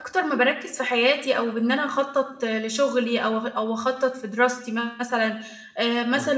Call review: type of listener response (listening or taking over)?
listening